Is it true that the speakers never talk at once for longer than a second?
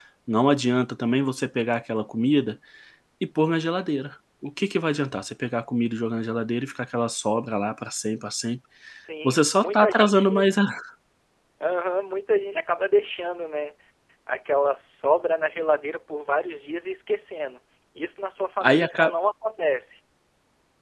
No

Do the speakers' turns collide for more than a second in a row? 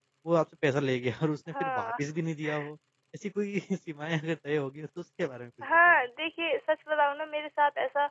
No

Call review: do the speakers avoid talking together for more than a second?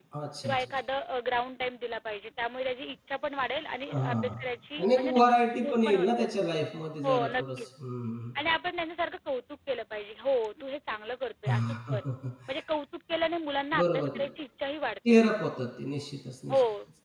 No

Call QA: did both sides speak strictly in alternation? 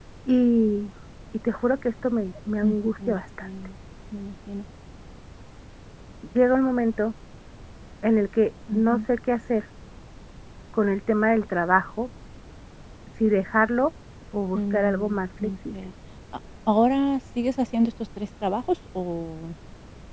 No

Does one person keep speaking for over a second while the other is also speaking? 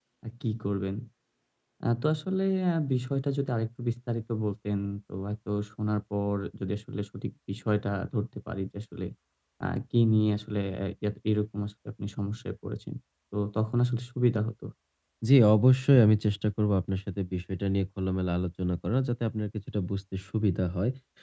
No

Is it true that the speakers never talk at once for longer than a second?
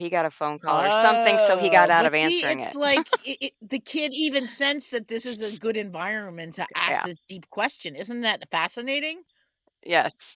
No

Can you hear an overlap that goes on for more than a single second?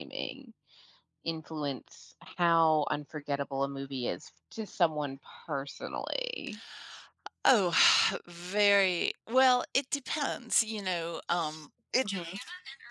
No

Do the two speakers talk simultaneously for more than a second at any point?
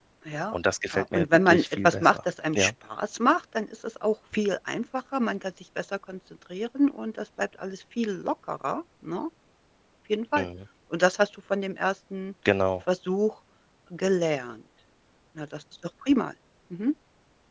Yes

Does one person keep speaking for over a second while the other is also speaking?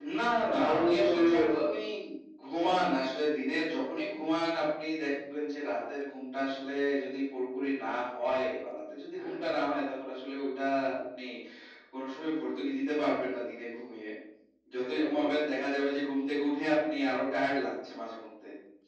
Yes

